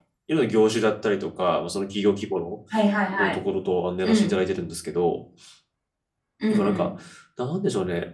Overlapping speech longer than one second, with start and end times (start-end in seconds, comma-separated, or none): none